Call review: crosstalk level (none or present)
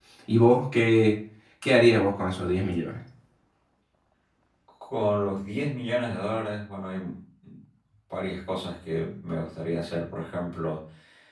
none